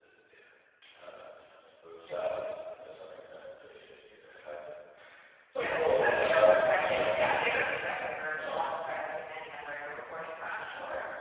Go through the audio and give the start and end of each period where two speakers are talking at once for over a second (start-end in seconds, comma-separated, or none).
6.1-7.6